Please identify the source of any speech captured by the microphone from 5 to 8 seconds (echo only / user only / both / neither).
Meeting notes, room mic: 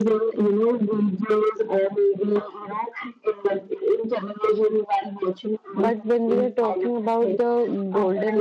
both